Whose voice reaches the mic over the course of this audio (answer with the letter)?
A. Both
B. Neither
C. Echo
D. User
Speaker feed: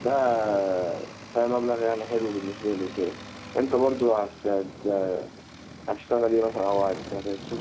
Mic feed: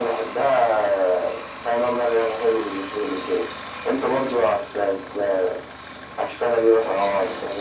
C